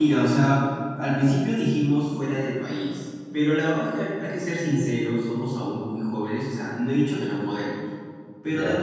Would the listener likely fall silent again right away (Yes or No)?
Yes